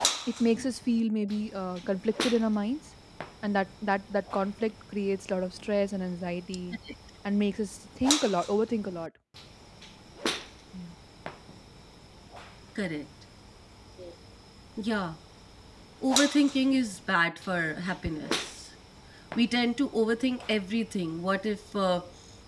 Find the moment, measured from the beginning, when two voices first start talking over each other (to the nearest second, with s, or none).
none